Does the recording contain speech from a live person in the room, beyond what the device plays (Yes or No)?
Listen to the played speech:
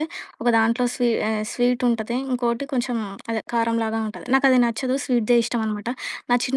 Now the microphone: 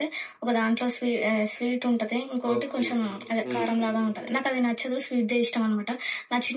Yes